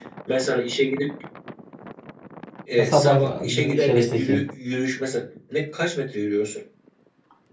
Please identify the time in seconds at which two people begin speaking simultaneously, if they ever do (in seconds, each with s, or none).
2.8 s